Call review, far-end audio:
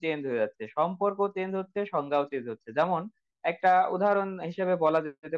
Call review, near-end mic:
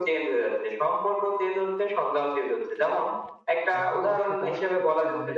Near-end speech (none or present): present